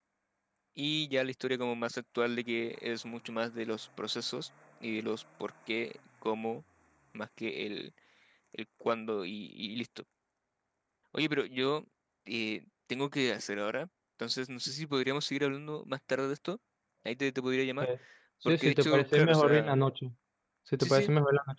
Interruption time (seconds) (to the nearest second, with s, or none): 18 s